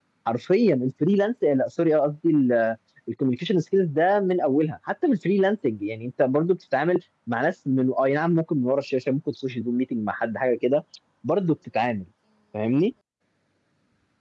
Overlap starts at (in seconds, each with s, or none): none